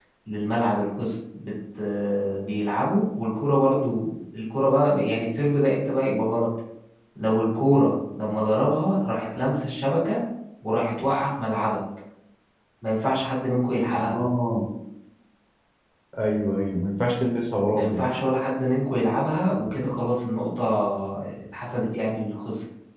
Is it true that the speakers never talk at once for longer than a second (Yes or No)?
Yes